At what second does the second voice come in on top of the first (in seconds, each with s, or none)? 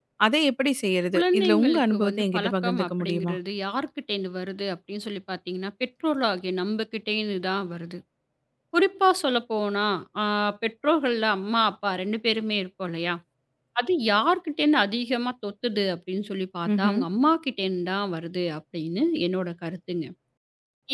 1.1 s